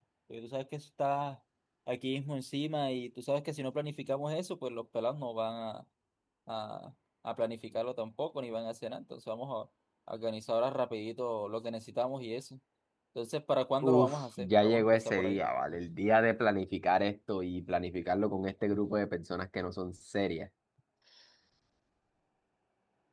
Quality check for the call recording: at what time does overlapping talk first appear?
13.8 s

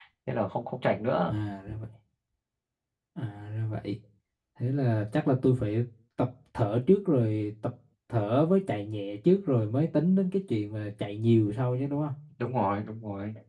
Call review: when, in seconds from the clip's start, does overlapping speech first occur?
none

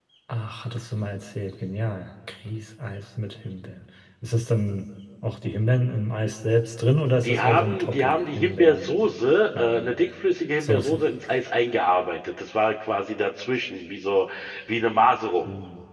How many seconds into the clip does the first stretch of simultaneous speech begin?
7.2 s

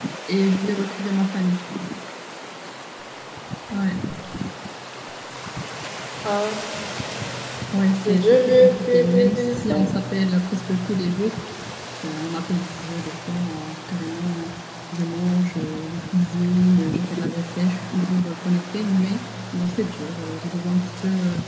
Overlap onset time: 8.1 s

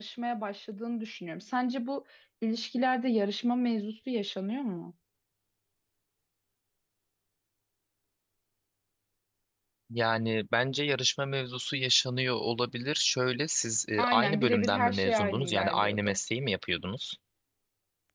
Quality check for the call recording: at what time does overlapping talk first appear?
14.0 s

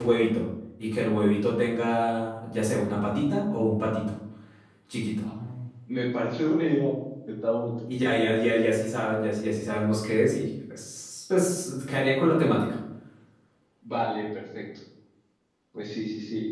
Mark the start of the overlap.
none

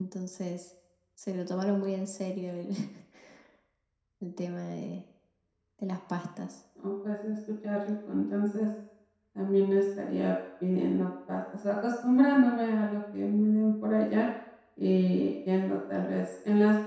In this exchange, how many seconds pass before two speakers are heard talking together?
none

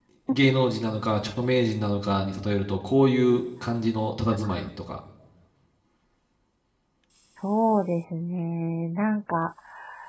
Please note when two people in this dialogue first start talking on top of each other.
none

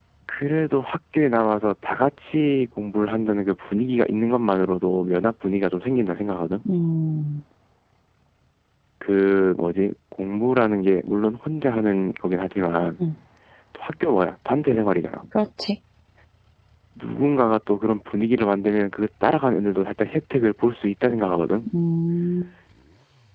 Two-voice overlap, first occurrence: none

